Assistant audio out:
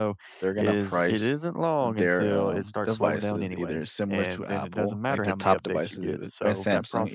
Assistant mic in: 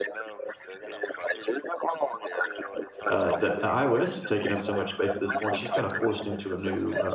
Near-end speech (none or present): present